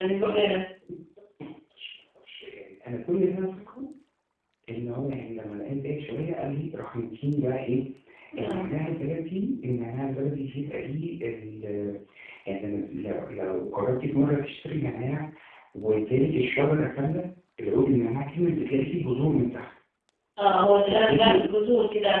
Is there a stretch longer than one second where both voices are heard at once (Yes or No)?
No